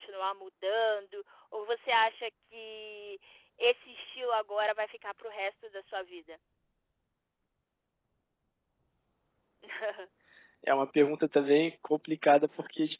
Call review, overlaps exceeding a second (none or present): none